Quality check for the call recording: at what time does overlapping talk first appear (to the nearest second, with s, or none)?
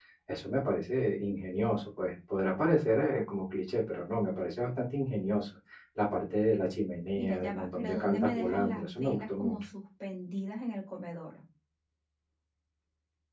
7 s